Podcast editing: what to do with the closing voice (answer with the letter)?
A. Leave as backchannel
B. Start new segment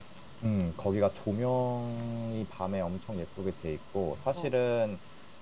A